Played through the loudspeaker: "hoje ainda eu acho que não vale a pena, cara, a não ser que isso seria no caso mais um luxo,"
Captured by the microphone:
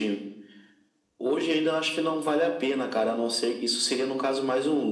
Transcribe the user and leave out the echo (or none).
none